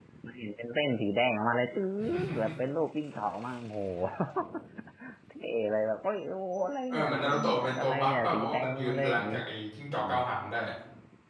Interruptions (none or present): present